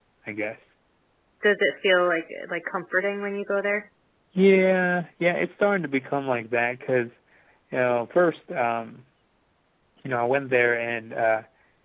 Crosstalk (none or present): none